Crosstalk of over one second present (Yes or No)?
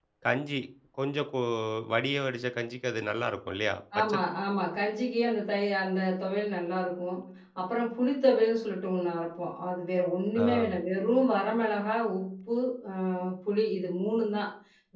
No